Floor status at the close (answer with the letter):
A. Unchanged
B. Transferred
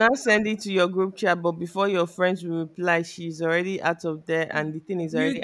B